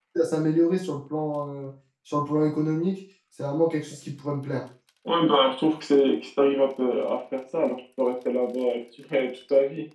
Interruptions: none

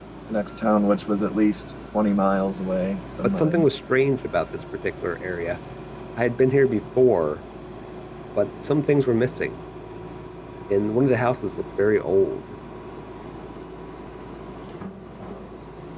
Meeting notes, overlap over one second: none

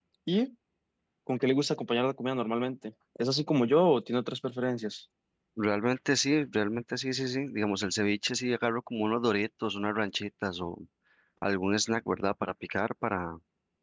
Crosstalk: none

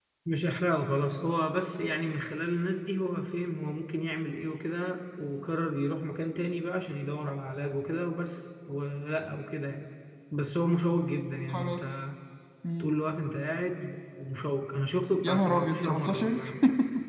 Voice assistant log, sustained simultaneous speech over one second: present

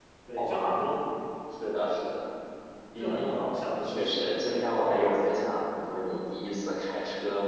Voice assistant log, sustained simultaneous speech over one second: present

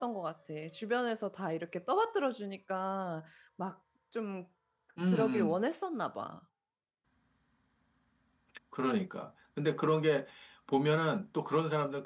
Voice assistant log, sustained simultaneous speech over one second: none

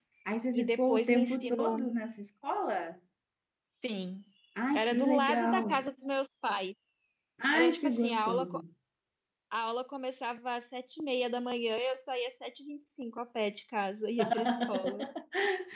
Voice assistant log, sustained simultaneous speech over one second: present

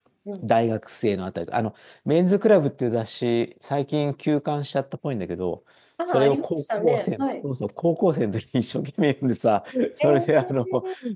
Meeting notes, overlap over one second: present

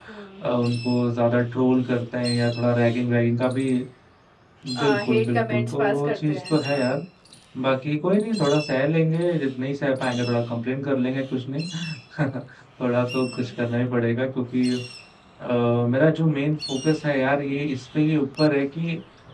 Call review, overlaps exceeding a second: present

